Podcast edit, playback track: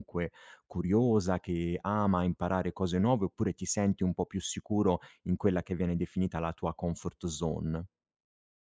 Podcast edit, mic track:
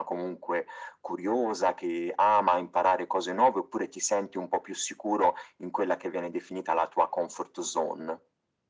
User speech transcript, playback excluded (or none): none